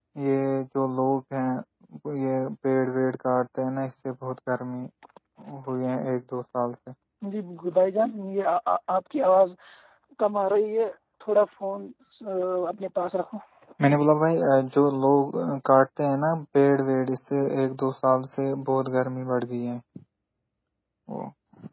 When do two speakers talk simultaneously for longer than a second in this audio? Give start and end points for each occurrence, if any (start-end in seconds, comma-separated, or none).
none